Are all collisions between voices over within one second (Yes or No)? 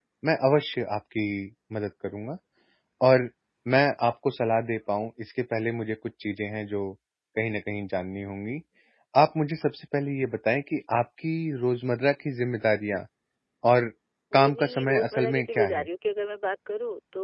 No